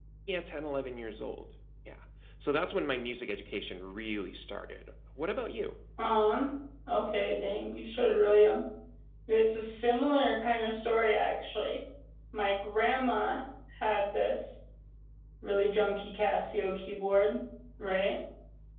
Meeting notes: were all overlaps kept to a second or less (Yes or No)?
Yes